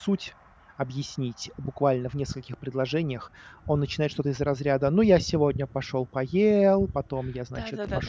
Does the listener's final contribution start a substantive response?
Yes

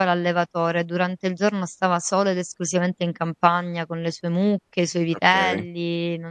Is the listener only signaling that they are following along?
Yes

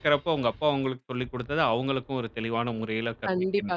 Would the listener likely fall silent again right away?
No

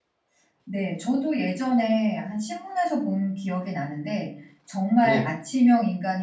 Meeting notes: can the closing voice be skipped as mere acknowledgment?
Yes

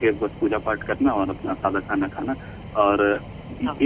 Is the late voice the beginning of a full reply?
No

